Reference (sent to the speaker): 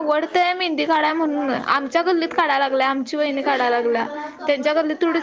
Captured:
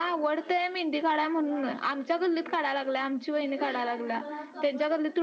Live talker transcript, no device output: none

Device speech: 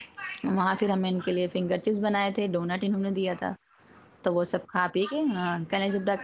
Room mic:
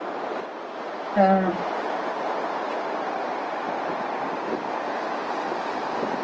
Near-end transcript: ہاں

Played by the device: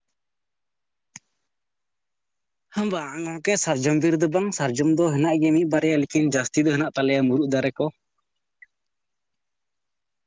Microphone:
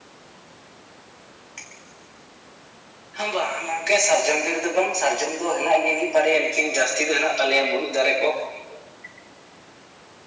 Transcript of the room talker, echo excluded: none

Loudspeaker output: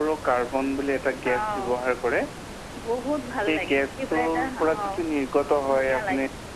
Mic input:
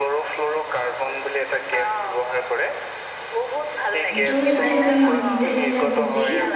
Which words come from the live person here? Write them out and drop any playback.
এইটোও যদি আমি নিজে নিজে বুজি

